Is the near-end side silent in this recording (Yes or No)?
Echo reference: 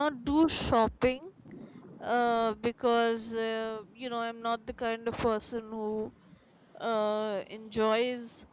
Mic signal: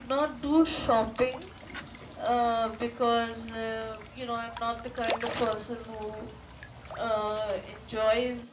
Yes